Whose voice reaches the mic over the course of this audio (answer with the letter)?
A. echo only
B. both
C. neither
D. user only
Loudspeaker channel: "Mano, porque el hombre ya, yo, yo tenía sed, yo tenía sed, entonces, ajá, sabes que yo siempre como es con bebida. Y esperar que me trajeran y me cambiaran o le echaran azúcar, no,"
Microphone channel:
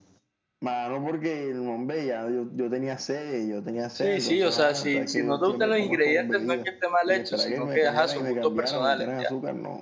B